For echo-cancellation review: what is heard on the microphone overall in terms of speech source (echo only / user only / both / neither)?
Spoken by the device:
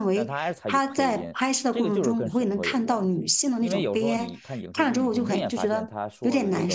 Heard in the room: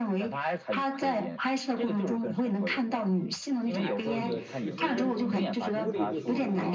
both